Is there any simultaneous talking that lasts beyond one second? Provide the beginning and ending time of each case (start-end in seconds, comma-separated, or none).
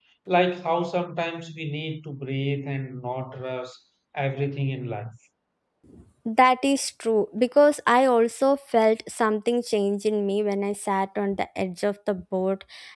none